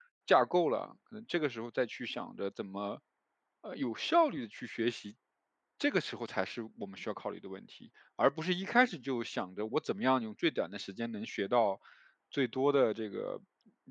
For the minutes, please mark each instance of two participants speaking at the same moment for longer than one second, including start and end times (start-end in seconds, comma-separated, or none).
none